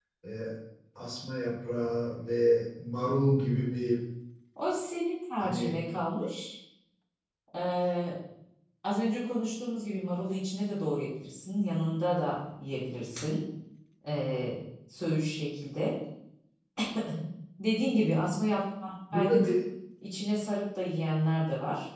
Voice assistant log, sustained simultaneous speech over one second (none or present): none